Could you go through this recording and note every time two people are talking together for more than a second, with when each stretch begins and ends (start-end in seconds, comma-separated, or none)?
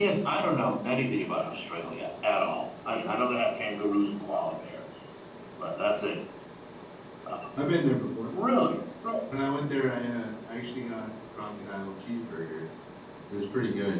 none